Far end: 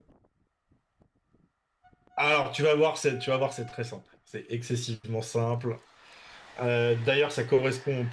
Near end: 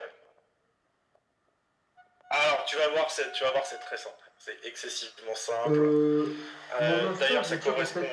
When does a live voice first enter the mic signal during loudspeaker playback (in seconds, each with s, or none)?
5.7 s